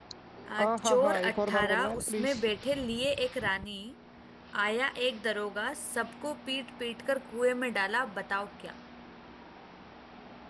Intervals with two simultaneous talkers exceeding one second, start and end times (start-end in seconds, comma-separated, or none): 0.6-2.4